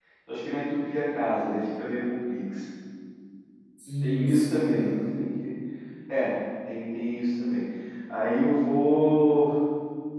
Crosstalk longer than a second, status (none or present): present